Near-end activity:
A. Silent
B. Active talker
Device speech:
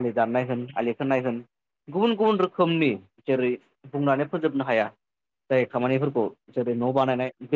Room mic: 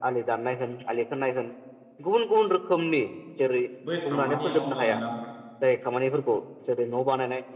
B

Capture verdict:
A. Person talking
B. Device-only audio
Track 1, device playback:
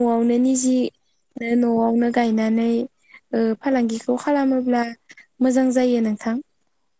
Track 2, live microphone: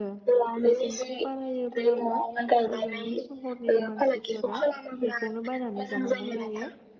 A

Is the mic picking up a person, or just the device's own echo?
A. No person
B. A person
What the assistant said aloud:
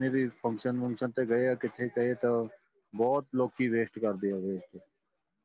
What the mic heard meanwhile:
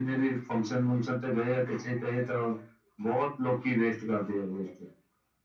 A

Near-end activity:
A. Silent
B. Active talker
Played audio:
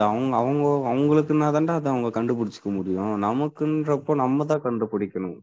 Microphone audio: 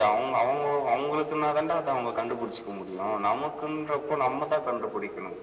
A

